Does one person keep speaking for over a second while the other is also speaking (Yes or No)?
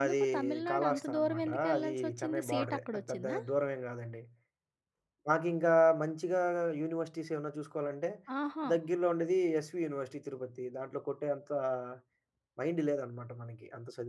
Yes